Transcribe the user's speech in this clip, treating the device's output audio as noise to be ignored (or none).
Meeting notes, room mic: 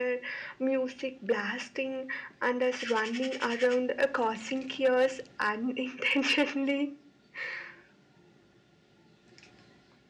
none